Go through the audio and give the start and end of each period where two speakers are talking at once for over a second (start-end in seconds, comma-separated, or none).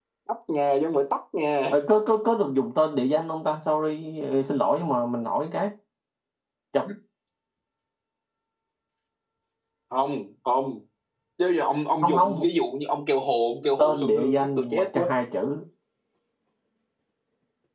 13.8-15.1